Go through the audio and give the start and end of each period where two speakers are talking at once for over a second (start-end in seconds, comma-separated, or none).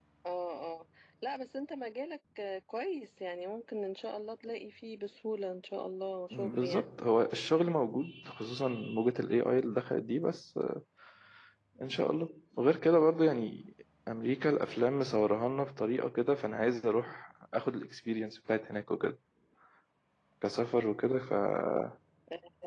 none